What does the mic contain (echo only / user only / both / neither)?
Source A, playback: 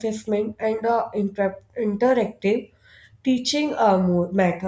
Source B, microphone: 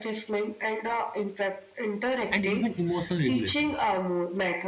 both